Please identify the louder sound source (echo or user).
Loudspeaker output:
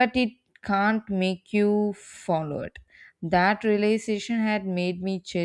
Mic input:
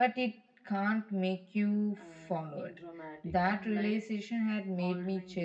echo